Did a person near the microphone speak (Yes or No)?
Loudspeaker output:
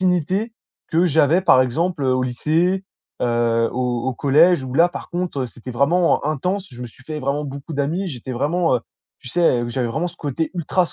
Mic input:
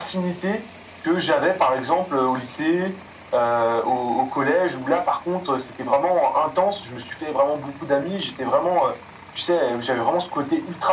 No